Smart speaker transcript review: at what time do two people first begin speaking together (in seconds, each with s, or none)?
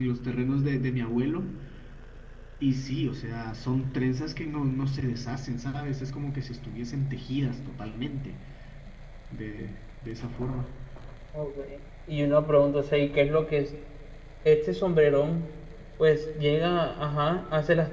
none